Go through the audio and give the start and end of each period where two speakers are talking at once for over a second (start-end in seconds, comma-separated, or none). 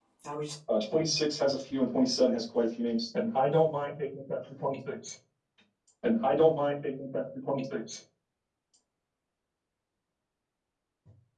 none